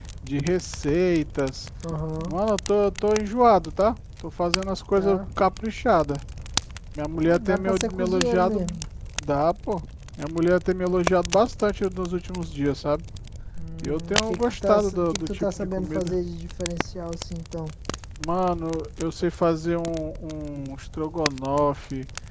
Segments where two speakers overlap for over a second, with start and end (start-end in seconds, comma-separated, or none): 7.2-8.6, 13.8-16.2